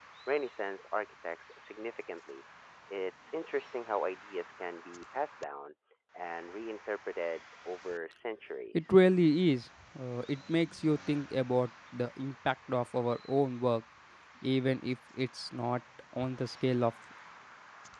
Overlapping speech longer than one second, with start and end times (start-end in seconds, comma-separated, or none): none